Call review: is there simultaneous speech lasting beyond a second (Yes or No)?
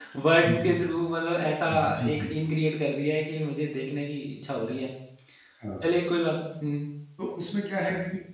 No